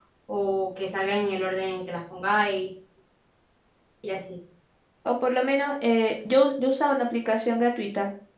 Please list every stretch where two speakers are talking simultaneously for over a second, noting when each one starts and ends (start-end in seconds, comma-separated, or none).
none